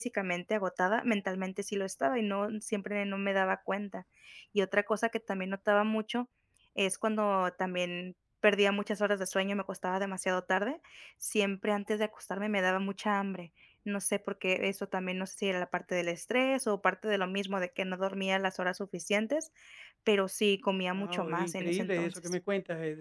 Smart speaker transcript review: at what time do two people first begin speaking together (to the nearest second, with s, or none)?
21 s